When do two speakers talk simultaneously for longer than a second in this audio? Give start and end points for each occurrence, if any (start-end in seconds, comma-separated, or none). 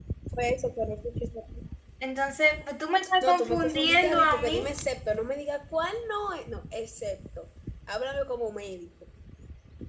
3.2-4.6